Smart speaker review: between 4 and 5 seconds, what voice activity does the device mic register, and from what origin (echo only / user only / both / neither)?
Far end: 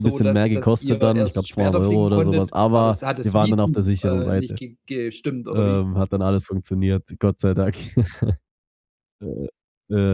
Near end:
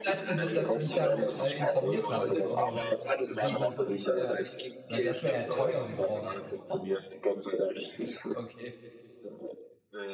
both